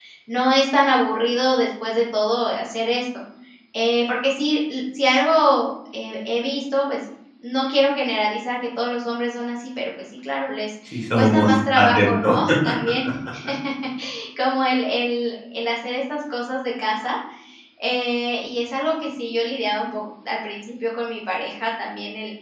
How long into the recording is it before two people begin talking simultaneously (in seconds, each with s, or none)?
10.9 s